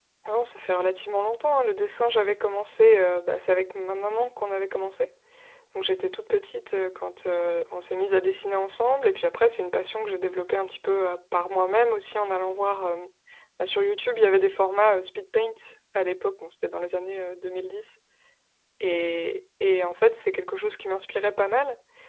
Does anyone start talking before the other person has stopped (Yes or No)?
No